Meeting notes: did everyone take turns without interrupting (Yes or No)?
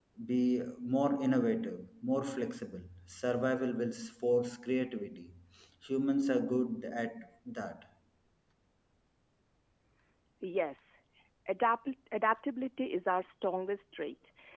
Yes